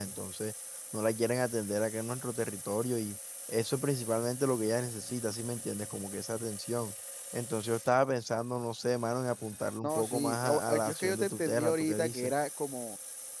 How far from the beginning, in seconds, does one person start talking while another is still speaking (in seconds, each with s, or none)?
9.8 s